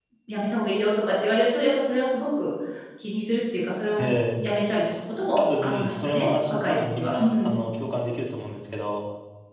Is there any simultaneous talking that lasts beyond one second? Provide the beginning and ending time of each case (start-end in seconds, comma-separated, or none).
5.4-7.5